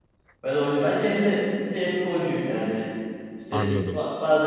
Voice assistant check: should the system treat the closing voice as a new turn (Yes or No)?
No